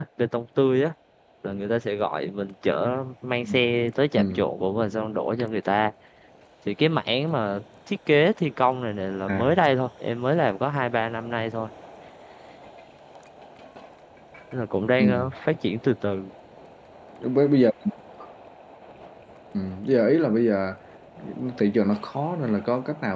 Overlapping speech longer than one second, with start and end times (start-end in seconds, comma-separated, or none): none